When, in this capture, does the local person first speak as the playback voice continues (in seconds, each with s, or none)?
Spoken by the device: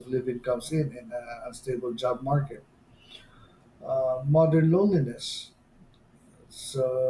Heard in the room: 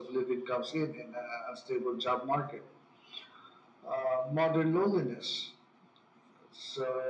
none